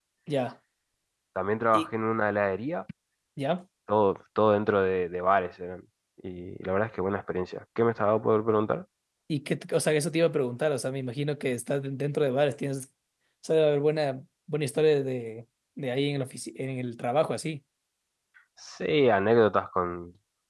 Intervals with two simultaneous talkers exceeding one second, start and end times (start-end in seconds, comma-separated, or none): none